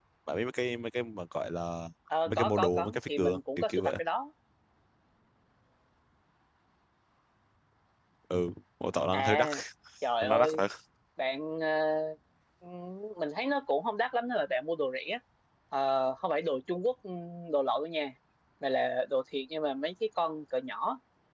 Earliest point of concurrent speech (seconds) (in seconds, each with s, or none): 2.3 s